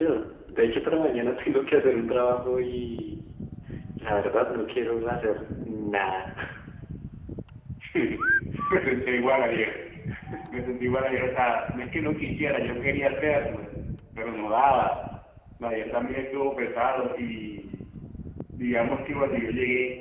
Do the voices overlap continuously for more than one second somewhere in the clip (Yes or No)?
No